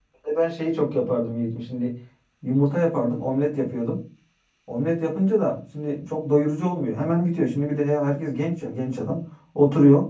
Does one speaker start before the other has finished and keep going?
No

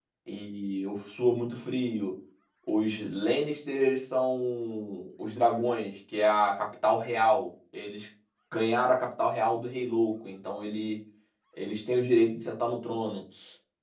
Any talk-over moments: No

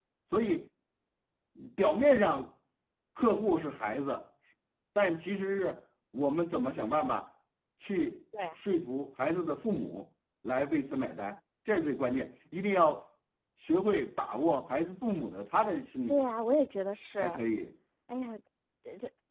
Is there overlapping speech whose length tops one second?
No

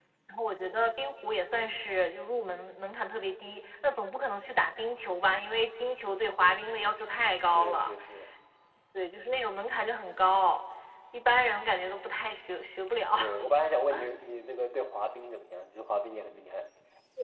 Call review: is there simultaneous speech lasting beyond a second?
No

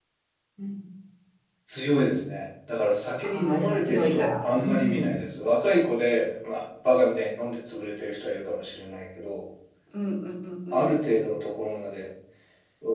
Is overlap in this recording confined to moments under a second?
No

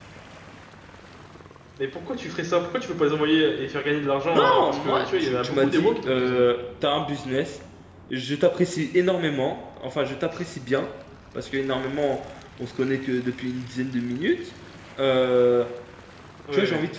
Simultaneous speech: Yes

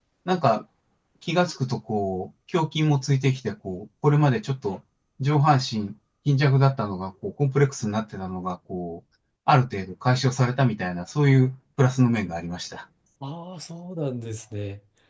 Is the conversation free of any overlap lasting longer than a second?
Yes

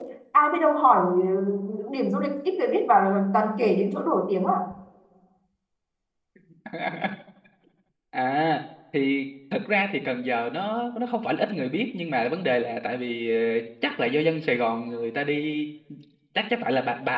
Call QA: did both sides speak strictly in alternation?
Yes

